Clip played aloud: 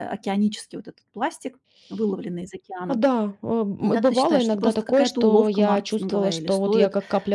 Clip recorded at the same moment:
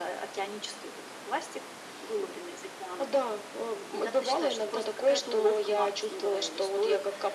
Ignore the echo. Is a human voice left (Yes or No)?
No